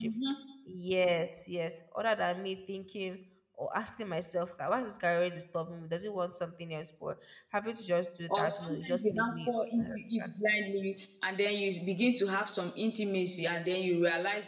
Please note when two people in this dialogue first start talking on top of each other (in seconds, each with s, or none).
8.3 s